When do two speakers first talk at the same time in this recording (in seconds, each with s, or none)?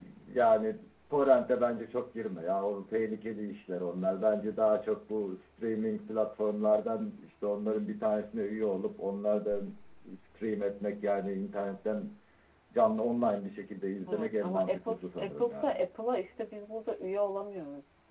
14.1 s